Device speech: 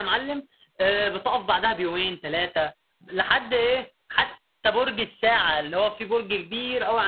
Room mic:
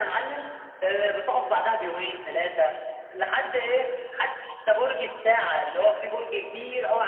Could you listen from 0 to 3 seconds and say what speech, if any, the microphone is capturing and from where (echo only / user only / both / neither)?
echo only